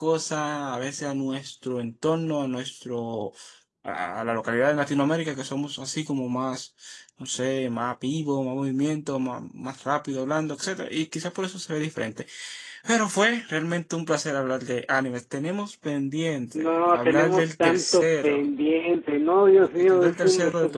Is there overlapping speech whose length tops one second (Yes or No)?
Yes